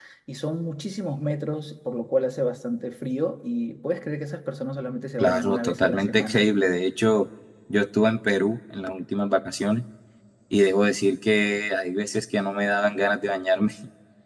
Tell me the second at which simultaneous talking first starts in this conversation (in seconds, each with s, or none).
5.2 s